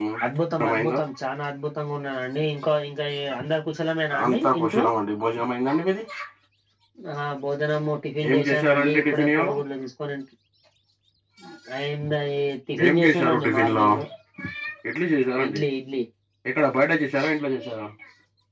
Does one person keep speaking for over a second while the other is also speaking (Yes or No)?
Yes